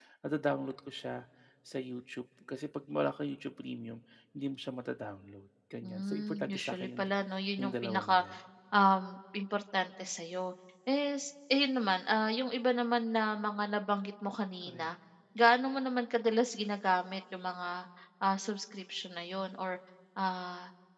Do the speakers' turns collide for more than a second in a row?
Yes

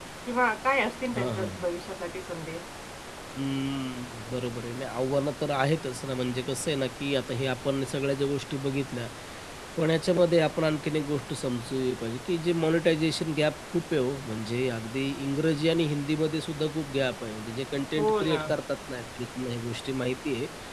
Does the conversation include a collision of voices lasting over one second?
No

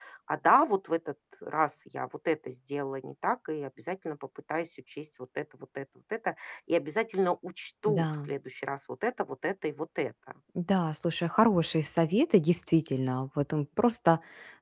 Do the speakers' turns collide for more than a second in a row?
No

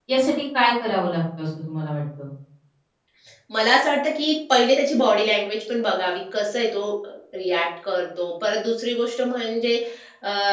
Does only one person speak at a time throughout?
Yes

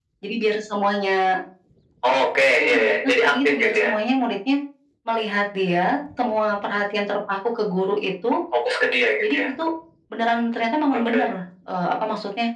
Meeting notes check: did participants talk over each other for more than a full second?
Yes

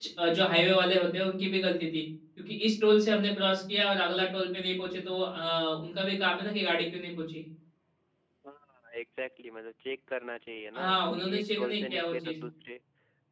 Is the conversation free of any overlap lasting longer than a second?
No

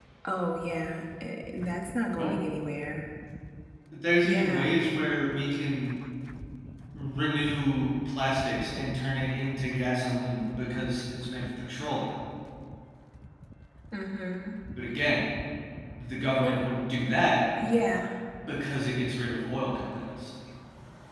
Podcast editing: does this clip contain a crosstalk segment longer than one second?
No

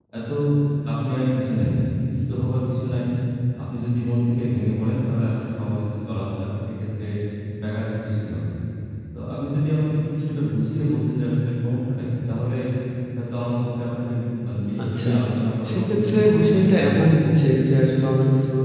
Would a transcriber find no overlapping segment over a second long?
No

